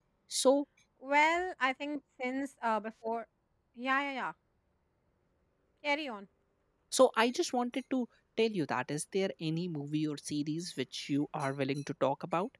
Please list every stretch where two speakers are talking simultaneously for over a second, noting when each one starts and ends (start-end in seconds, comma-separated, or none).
none